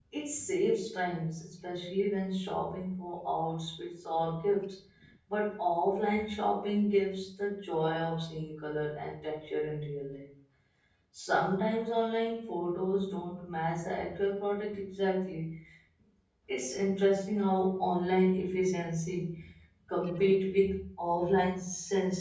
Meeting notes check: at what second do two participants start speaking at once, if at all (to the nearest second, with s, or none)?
none